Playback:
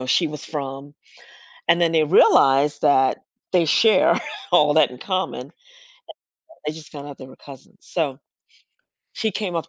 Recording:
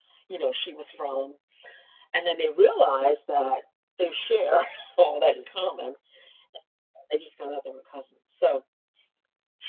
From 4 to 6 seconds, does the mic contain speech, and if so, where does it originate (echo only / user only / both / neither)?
echo only